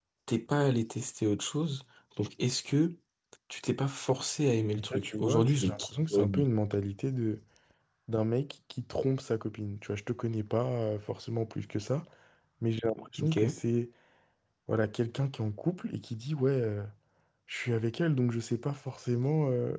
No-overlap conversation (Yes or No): No